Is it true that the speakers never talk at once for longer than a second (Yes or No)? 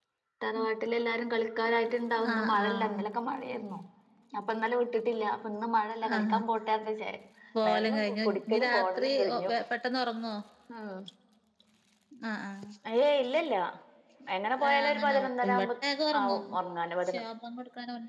No